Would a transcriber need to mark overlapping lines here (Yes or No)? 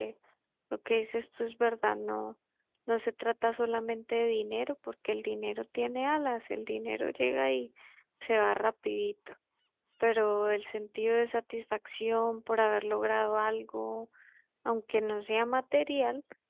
No